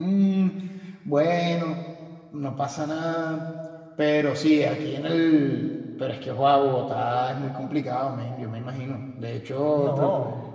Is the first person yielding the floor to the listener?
No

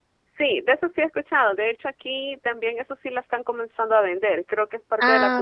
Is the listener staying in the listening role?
Yes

